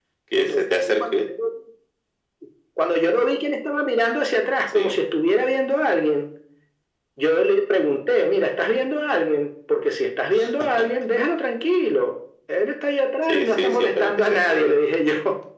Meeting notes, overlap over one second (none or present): present